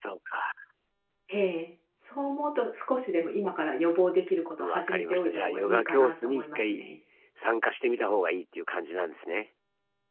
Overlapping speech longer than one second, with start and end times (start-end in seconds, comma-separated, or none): 4.6-6.8